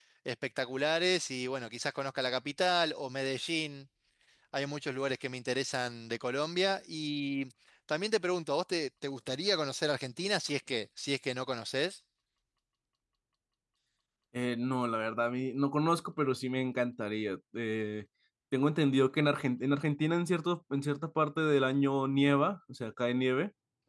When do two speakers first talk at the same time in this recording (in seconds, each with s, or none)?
none